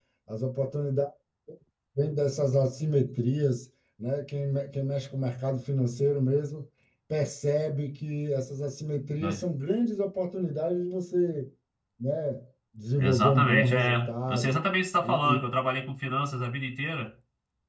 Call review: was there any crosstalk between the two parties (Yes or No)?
Yes